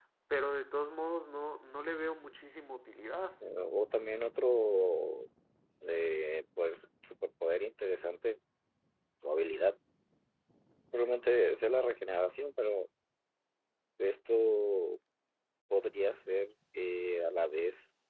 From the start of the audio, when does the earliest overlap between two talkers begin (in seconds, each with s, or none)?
none